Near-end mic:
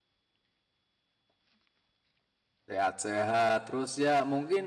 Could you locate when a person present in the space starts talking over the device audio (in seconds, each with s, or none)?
2.7 s